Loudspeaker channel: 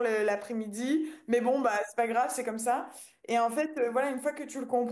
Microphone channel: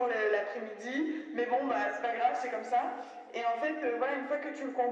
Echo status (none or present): present